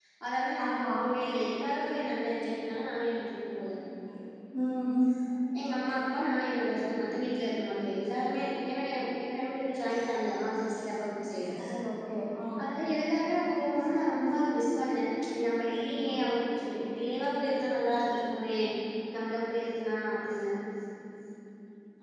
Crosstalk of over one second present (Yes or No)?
No